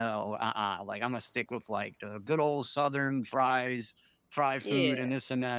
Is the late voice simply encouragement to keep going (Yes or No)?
Yes